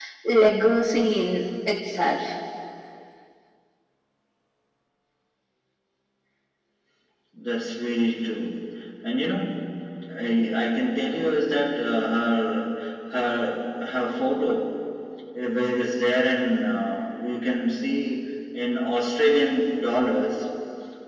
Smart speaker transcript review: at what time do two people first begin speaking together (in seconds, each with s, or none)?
none